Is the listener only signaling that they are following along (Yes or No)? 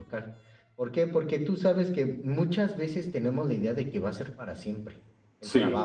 Yes